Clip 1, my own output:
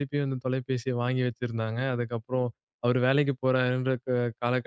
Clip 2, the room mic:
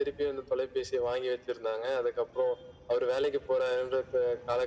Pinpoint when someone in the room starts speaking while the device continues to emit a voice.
none

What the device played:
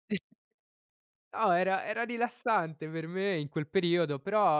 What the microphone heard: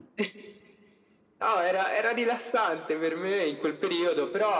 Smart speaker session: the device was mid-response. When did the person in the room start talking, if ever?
none

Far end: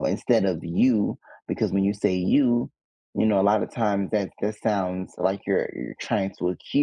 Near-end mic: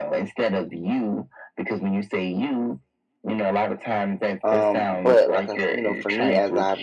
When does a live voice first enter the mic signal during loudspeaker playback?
4.4 s

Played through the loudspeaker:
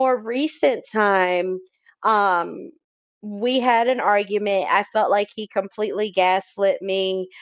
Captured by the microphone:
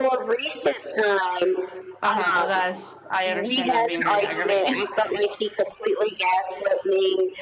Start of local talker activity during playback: 2.0 s

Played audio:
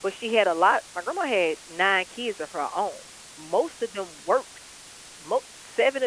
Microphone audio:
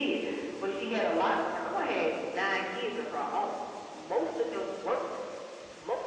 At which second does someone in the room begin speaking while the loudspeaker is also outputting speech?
none

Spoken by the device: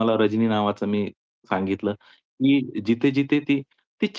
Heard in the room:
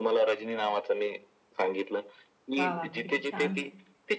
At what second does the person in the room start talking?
2.6 s

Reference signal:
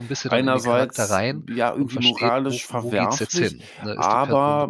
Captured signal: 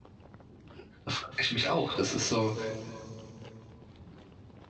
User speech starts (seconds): 1.0 s

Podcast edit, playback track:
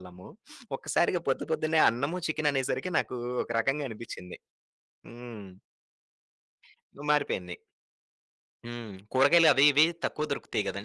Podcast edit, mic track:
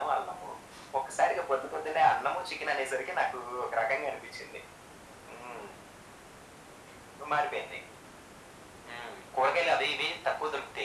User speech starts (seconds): none

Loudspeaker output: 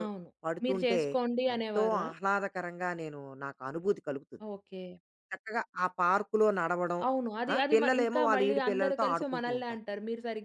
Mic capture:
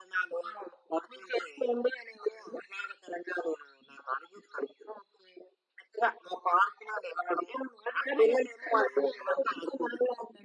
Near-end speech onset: none

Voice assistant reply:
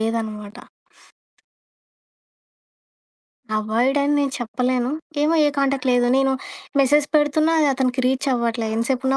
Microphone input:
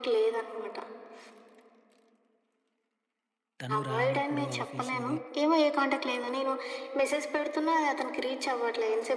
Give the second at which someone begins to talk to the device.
3.6 s

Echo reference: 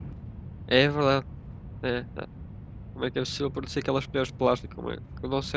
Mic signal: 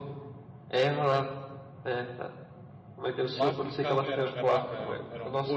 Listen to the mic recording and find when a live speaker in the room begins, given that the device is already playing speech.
3.3 s

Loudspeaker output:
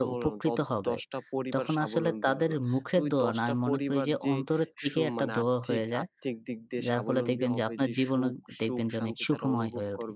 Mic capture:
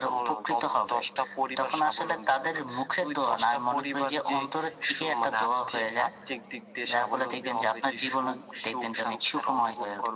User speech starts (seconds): none

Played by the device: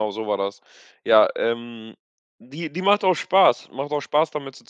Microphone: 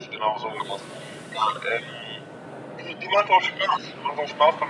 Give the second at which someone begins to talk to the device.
none

